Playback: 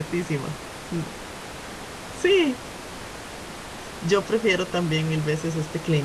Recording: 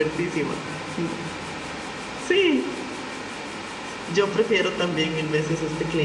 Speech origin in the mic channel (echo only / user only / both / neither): echo only